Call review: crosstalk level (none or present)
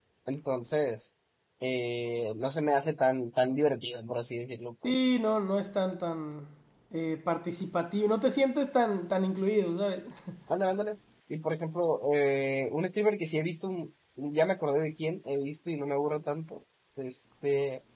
none